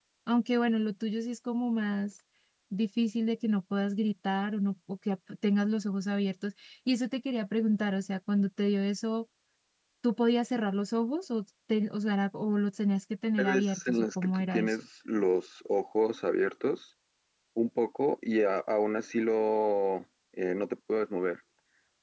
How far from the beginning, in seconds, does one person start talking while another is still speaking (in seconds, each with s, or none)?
13.4 s